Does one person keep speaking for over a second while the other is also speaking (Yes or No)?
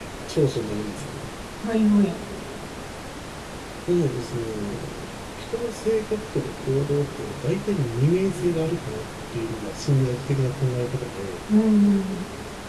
No